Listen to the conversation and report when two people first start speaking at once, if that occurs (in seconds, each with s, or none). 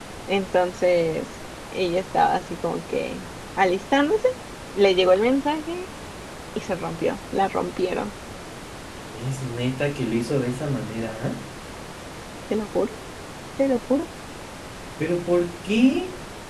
none